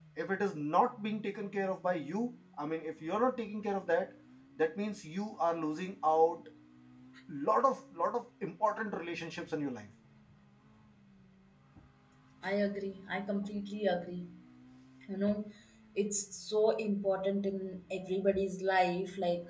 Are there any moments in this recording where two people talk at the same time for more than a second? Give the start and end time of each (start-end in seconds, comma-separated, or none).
none